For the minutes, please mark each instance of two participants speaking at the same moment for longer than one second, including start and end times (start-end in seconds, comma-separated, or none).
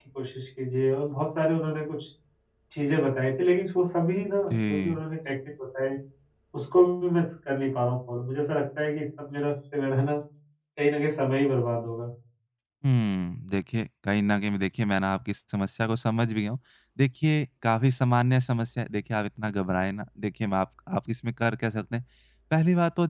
none